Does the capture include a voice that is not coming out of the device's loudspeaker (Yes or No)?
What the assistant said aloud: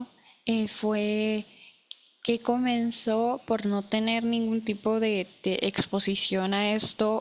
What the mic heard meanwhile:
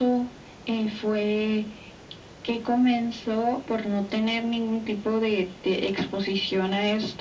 No